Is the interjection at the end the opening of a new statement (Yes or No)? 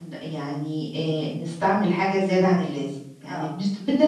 No